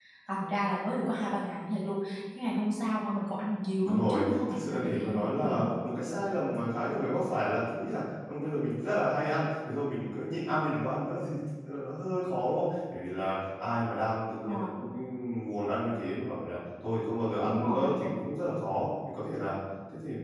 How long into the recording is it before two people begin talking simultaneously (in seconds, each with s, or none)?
3.8 s